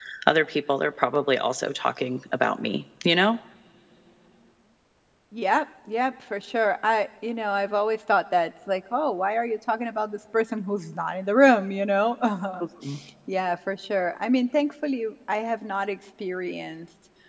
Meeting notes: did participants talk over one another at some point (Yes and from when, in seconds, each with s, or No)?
No